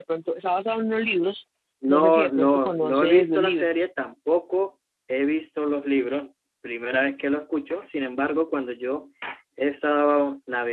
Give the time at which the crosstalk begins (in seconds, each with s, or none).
1.9 s